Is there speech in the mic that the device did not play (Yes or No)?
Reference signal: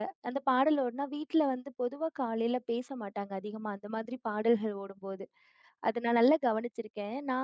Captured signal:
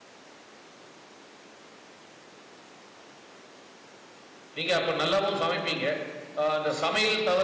Yes